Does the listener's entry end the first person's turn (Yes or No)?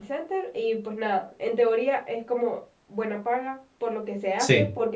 No